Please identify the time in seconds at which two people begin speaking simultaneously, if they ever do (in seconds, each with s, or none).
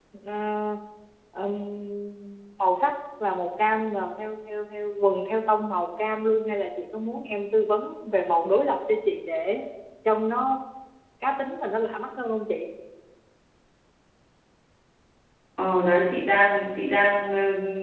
none